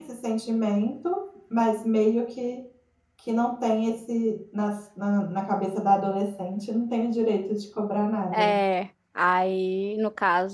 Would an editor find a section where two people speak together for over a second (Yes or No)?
No